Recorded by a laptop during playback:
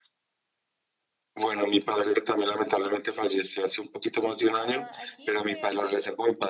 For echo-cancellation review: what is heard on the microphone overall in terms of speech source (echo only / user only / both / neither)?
both